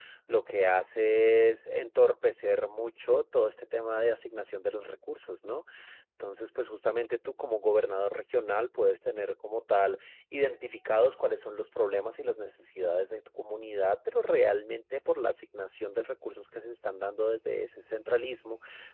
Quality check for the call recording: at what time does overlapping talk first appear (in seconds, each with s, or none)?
none